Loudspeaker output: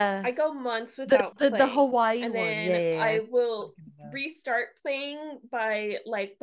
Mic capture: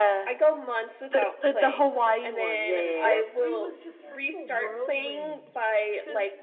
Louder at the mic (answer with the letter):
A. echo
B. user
A